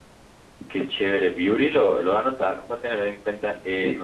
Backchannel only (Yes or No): Yes